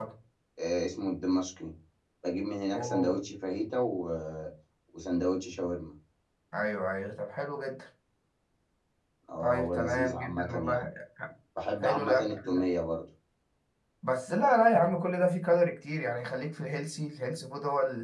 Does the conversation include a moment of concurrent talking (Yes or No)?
Yes